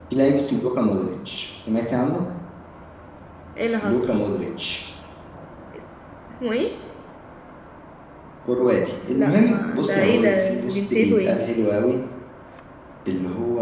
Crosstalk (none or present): present